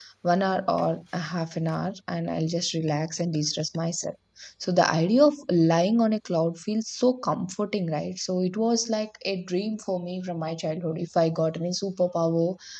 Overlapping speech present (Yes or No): No